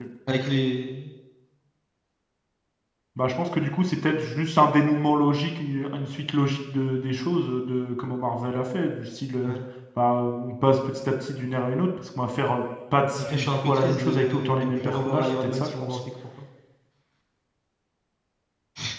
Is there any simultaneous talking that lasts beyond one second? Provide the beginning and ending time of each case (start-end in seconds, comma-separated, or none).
13.2-16.0